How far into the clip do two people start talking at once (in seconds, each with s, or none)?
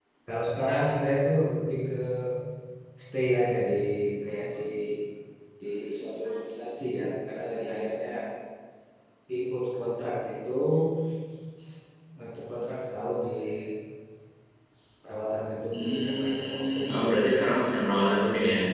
15.7 s